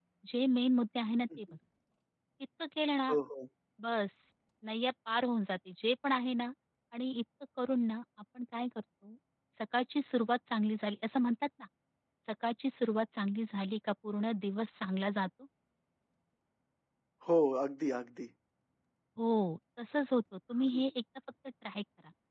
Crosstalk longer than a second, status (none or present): none